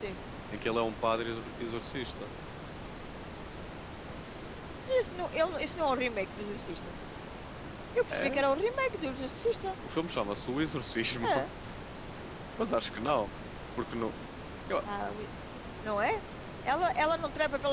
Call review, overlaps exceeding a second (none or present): none